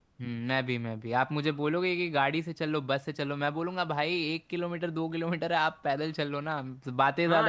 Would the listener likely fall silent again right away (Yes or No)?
No